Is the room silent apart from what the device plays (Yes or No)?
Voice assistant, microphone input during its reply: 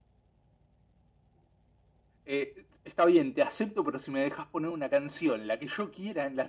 No